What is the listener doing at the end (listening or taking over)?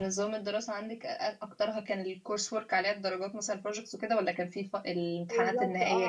taking over